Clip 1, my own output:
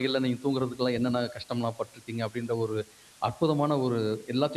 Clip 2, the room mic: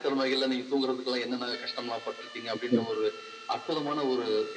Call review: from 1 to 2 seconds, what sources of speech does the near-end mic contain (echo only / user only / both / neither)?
echo only